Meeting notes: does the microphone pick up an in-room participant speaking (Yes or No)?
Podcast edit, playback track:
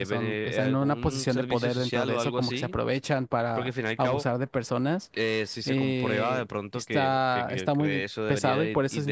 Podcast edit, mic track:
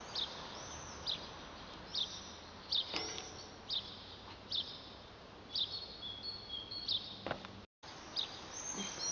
No